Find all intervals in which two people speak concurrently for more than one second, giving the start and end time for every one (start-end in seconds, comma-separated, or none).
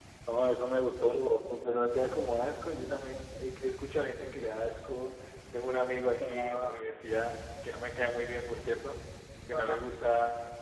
none